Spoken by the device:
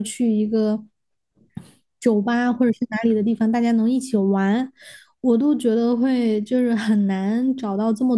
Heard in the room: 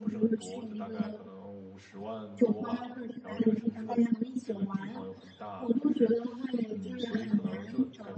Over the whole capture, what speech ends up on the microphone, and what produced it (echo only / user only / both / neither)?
both